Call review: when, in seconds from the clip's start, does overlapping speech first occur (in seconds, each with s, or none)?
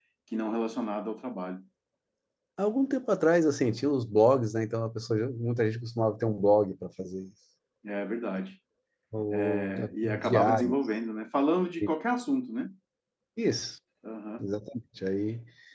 9.3 s